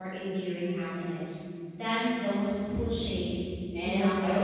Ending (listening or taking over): taking over